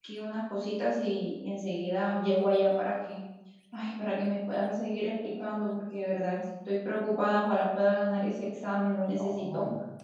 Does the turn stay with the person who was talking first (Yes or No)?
No